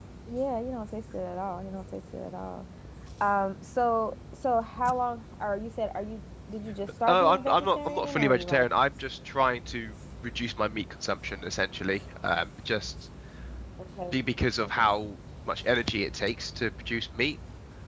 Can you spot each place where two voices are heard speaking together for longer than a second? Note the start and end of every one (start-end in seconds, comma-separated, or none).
7.1-8.7